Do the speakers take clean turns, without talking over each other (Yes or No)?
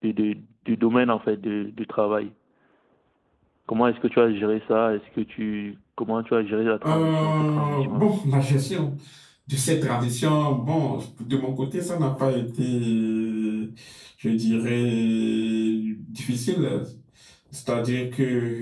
No